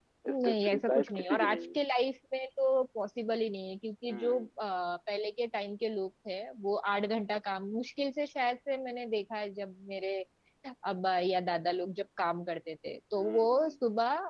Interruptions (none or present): present